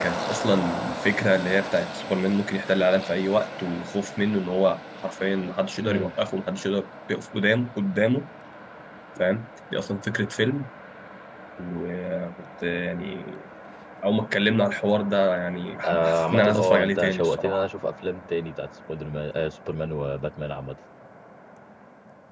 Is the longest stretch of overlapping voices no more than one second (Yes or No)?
No